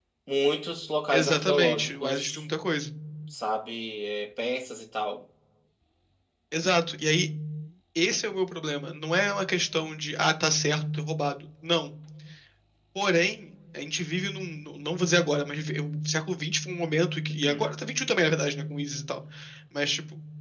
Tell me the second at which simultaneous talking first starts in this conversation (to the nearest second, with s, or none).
1 s